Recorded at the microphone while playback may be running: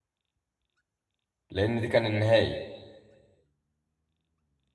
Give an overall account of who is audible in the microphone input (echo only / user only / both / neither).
user only